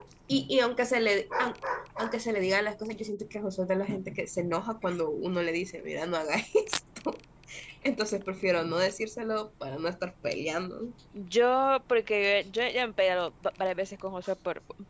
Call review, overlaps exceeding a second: none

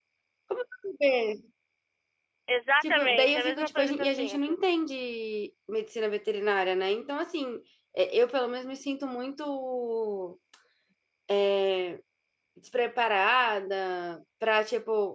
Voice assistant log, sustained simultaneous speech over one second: present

